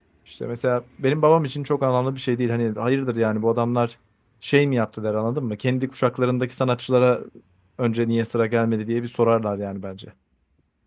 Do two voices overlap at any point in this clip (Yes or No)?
No